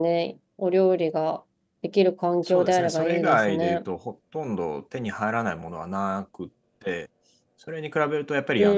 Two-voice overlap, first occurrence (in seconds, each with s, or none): 2.4 s